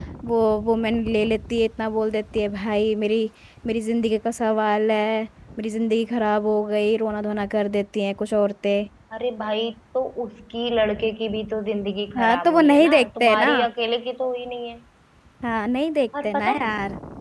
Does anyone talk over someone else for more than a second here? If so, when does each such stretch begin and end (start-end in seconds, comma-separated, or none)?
12.2-13.5